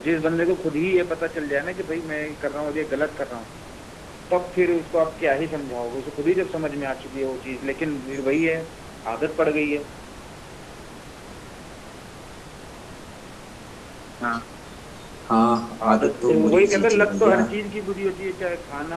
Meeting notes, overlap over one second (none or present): present